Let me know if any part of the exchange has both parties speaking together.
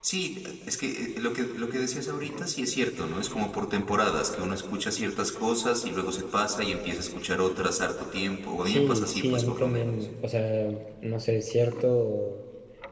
Yes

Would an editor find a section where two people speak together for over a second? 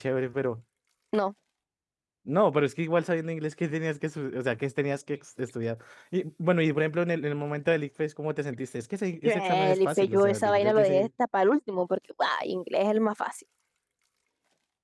Yes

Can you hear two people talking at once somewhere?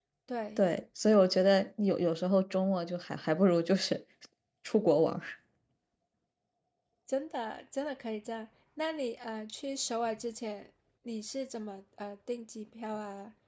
No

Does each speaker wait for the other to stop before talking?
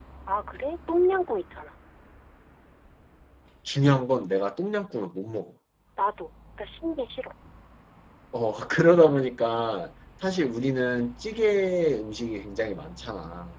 Yes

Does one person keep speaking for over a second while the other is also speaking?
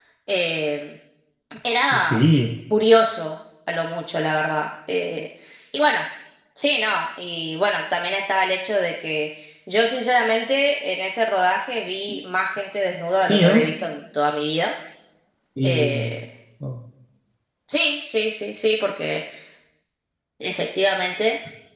No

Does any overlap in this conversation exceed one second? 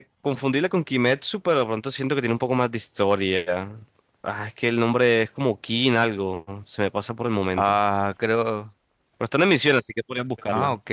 No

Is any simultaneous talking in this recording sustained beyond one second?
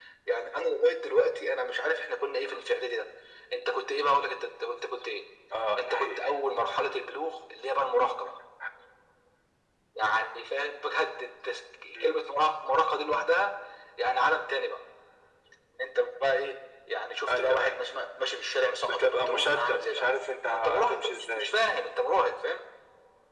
Yes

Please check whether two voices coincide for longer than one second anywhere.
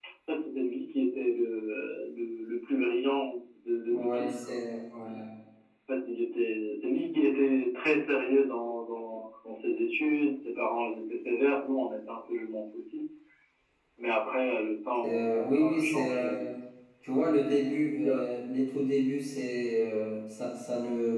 Yes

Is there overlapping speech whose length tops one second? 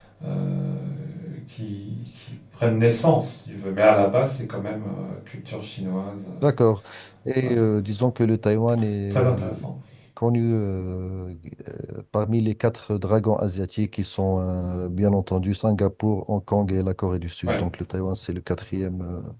No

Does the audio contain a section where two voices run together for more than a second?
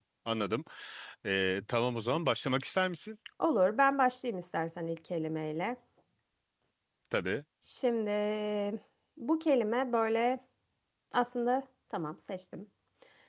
No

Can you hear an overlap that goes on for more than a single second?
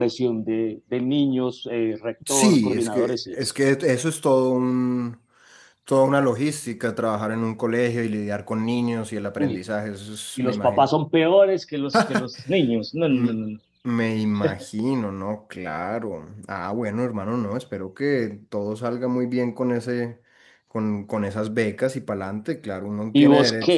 Yes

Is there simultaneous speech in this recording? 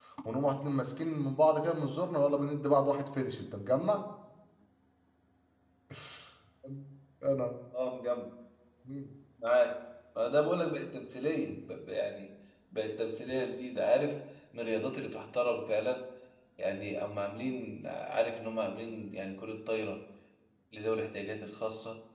No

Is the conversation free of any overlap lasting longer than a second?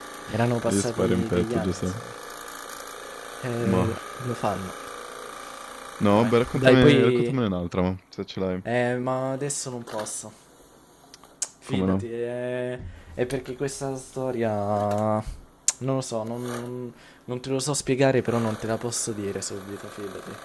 No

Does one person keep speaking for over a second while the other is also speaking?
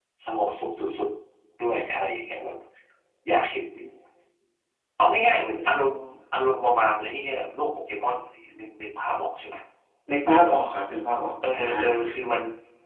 No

